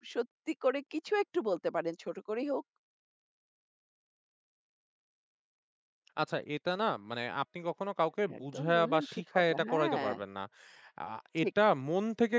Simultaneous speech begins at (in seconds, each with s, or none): 8.3 s